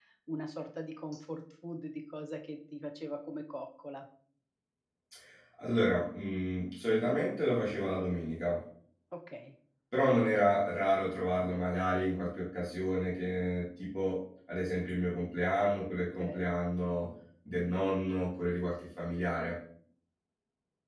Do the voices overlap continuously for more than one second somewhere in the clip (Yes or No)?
No